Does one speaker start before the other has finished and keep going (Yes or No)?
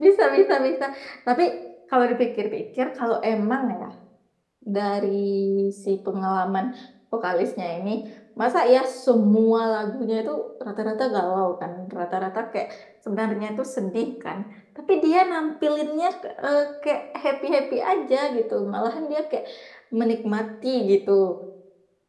No